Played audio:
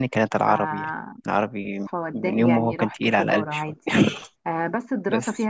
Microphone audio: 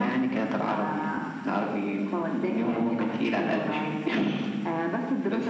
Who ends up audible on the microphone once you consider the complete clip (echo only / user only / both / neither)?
echo only